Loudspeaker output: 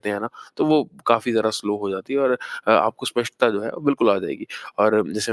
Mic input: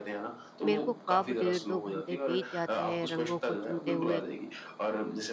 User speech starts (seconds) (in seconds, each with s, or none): 0.6 s